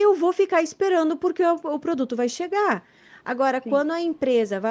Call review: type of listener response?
listening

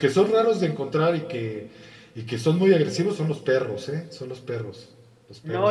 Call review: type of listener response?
taking over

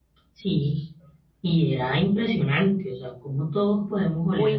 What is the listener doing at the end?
taking over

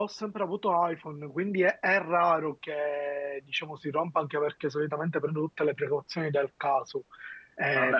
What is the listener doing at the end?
taking over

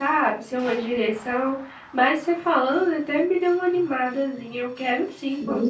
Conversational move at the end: taking over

